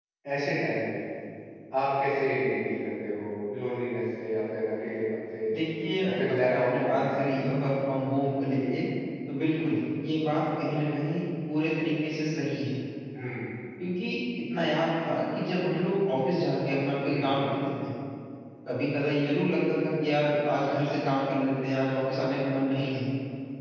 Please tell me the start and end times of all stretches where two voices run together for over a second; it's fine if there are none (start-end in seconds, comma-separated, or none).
6.0-7.3